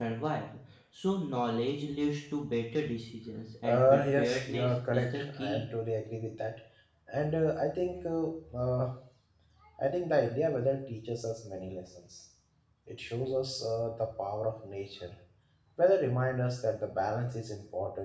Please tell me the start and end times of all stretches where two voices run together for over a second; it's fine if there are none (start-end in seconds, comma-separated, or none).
3.6-5.6